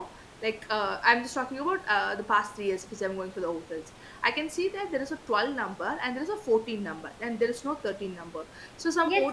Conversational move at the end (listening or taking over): taking over